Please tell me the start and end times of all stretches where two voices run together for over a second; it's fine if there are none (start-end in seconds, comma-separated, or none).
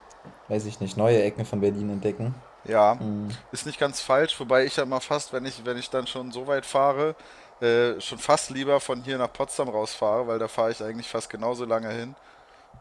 none